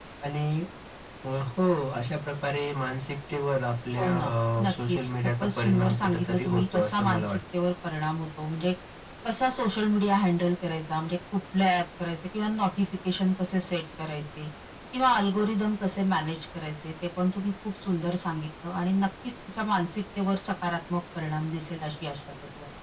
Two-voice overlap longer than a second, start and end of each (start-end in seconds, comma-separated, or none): 4.6-7.4